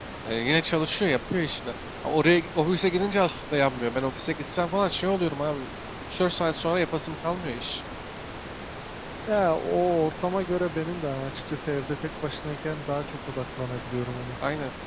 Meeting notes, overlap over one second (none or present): none